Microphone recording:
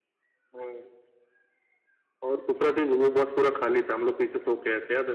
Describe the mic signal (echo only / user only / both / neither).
echo only